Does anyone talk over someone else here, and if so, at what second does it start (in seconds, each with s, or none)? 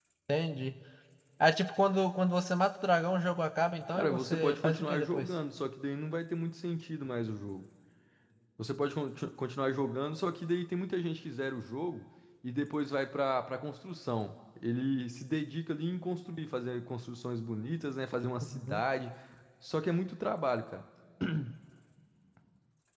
3.9 s